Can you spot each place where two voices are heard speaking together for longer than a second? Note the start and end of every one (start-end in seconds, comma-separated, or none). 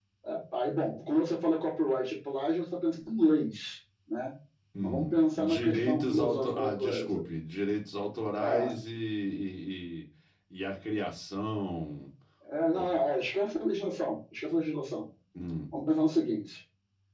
4.8-7.2